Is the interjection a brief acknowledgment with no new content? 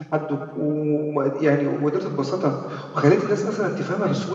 No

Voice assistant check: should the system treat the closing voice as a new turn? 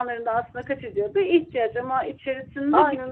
No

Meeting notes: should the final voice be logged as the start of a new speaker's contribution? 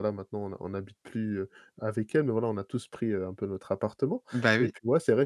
No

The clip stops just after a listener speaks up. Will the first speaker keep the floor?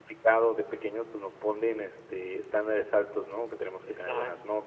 Yes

